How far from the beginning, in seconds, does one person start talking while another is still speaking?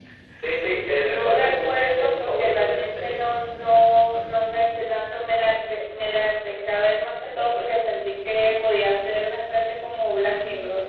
0.9 s

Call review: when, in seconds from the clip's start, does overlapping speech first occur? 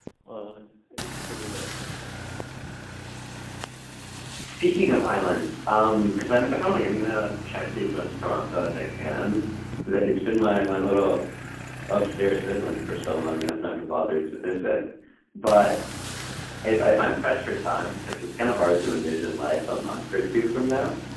none

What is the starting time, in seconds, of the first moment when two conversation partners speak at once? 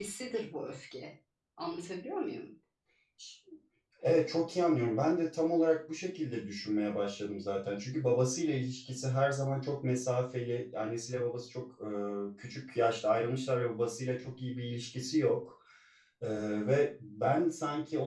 none

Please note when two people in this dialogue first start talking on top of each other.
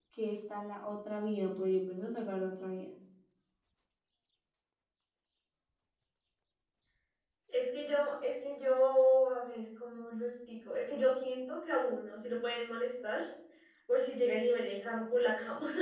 none

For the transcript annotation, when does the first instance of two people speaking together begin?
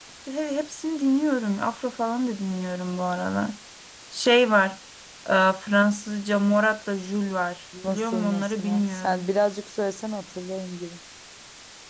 7.7 s

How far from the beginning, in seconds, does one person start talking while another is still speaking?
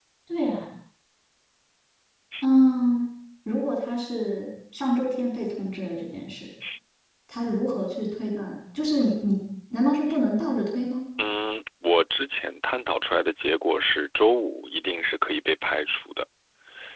none

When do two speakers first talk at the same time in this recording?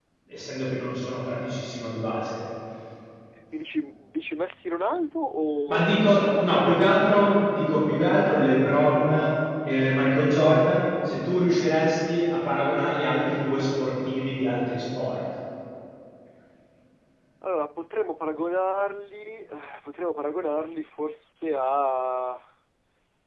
5.7 s

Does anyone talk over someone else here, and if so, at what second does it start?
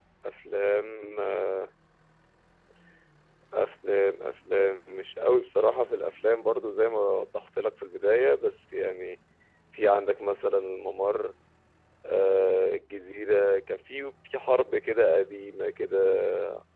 none

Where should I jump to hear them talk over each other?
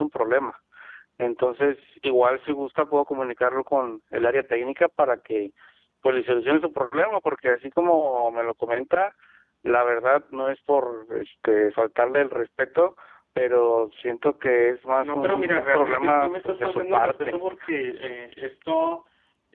15.0 s

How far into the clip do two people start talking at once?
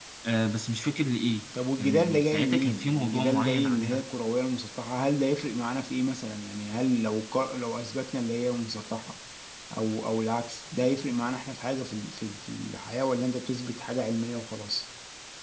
1.8 s

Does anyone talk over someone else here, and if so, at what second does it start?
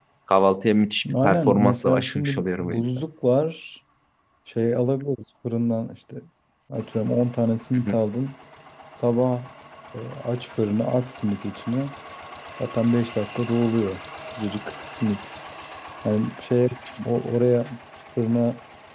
1.2 s

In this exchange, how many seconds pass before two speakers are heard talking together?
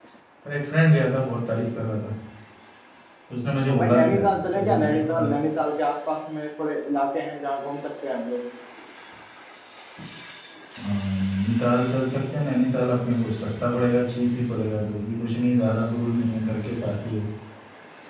3.7 s

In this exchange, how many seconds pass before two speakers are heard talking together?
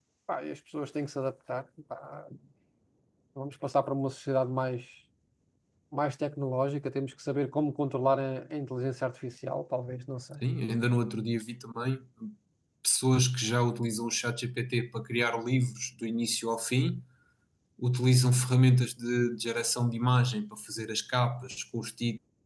none

